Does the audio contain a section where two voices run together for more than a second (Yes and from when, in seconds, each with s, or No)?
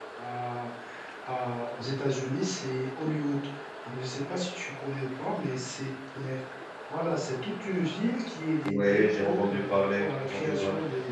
Yes, from 8.6 s